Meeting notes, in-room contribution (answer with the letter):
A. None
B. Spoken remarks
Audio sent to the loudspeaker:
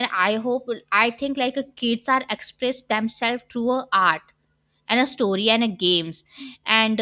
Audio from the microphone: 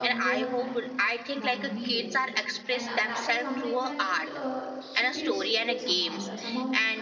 B